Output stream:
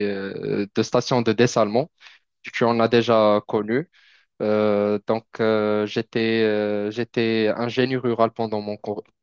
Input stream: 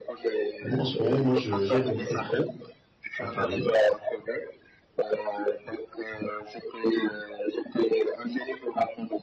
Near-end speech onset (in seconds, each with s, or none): 0.6 s